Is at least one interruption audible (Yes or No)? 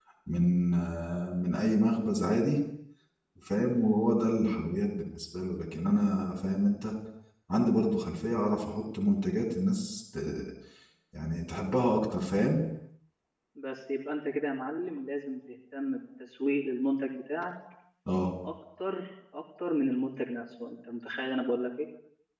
No